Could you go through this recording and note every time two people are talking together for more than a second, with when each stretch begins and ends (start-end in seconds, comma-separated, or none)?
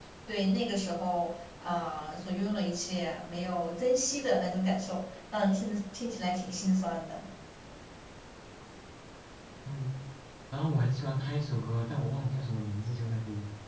none